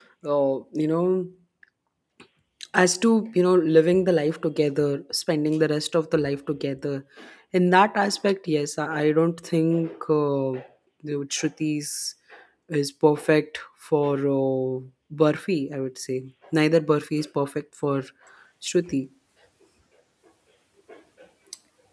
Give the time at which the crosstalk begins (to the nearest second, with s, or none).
none